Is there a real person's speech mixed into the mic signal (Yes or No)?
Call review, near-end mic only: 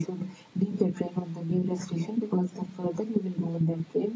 No